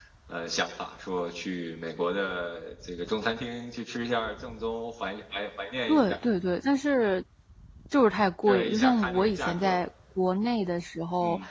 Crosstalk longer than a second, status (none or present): present